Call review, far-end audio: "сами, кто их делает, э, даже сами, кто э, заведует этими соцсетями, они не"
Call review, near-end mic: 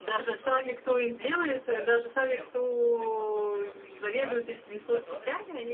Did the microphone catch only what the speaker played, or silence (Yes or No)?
No